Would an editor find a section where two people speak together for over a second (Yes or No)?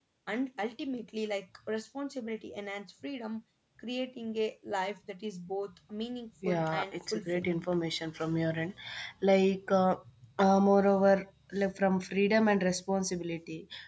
Yes